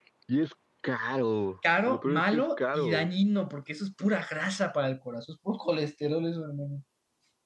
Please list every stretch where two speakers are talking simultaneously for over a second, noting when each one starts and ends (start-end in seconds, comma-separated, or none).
1.9-3.1